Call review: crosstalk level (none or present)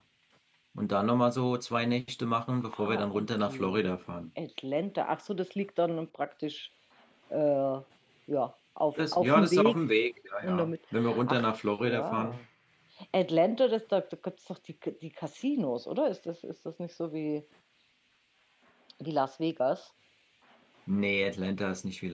present